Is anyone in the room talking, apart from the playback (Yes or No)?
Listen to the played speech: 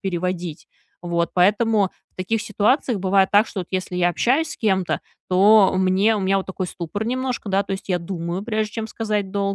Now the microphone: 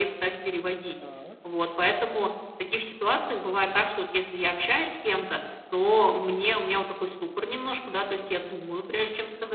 Yes